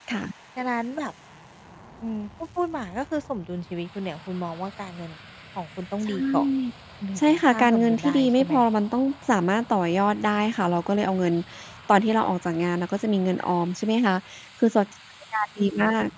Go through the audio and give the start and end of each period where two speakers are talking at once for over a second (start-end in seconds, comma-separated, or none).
7.2-8.5